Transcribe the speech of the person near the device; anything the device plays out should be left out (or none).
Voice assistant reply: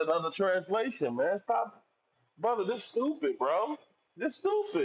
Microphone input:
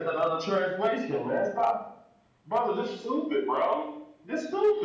none